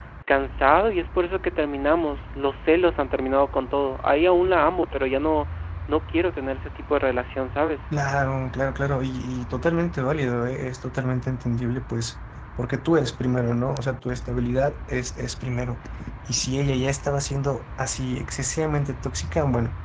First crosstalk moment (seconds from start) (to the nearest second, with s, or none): none